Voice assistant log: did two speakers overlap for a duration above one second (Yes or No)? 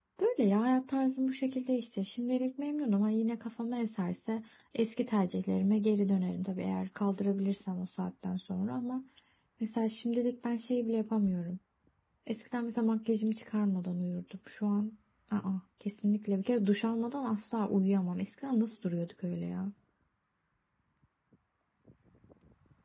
No